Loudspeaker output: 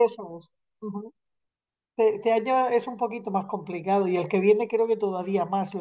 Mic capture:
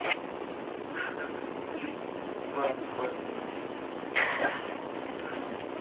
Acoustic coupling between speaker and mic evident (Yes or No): No